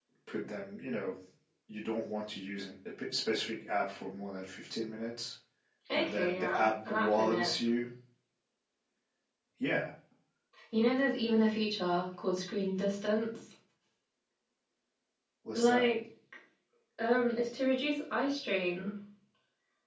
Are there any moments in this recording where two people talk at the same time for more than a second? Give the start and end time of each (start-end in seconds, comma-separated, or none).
5.9-7.5